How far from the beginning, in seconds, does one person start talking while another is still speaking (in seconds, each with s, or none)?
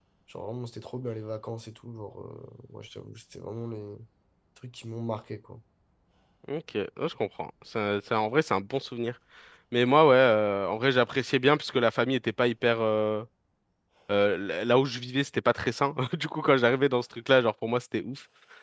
none